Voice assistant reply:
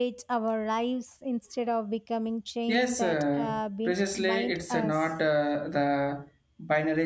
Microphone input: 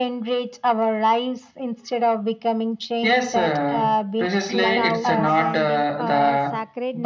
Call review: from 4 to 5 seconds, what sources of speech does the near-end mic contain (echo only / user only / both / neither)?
both